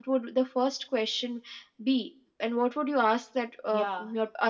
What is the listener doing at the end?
taking over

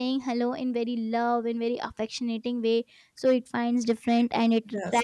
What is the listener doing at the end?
listening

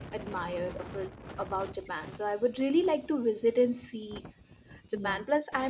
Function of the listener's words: listening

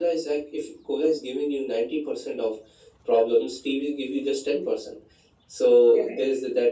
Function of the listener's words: listening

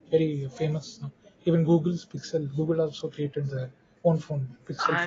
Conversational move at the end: taking over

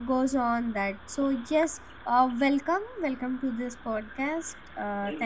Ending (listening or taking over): taking over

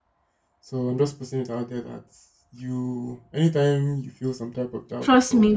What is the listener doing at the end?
taking over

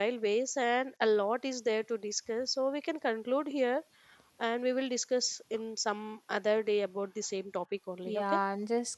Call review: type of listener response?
taking over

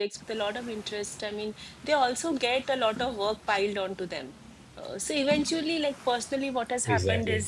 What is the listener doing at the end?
listening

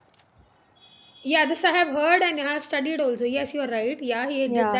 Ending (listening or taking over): taking over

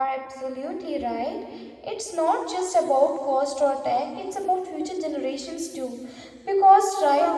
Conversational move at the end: listening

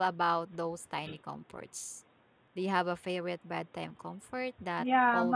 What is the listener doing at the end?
taking over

